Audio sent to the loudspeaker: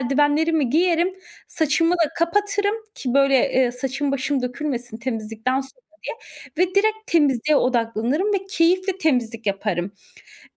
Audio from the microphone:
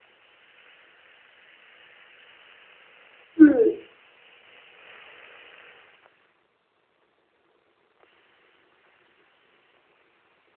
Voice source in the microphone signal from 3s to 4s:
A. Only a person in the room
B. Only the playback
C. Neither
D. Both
A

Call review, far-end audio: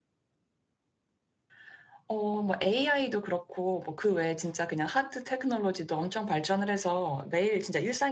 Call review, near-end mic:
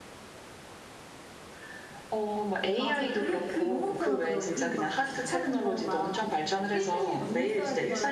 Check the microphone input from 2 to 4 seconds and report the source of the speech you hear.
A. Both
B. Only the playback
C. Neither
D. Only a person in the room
A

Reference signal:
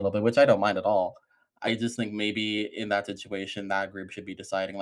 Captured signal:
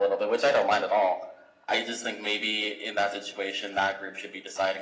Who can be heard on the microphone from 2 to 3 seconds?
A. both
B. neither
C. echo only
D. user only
C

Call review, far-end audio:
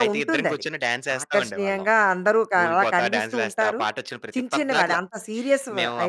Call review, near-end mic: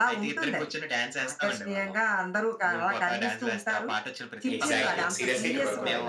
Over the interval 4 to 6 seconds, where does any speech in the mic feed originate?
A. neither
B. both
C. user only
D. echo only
B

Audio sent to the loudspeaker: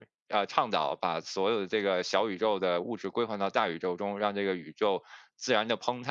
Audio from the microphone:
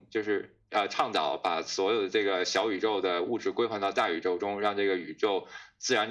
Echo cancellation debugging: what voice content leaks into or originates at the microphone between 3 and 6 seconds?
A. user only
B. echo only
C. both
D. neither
B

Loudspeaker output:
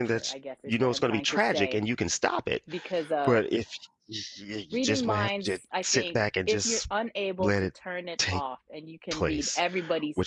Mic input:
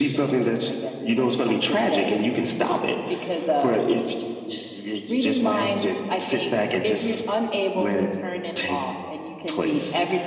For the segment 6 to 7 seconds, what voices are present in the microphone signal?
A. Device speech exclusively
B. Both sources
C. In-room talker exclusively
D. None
A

